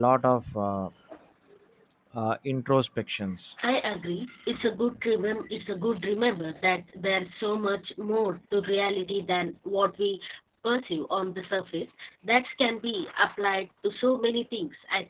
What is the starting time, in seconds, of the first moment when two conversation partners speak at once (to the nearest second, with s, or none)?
none